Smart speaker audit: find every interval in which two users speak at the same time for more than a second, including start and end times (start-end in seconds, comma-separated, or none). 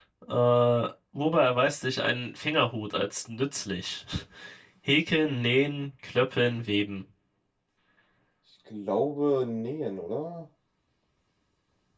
none